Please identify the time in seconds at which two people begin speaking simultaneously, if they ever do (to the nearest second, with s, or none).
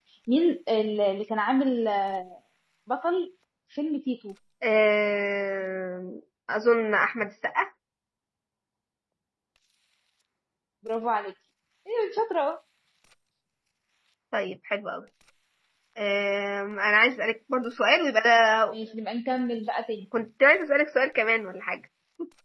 none